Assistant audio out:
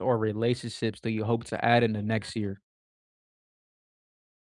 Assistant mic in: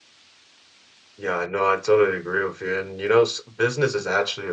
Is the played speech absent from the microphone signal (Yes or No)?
Yes